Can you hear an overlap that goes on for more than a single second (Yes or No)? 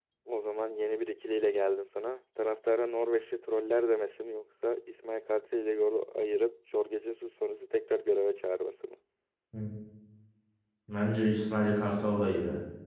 No